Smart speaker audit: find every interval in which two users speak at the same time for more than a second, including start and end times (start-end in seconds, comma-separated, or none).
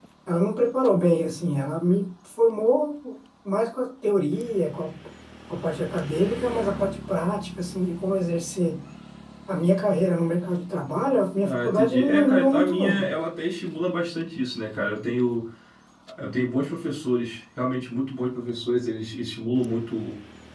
11.4-13.0